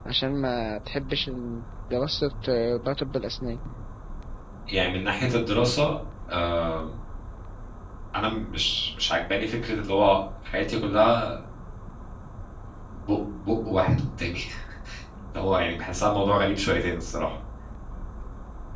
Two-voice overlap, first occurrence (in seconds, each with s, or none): none